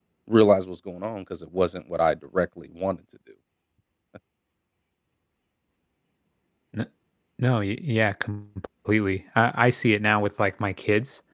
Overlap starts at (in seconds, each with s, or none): none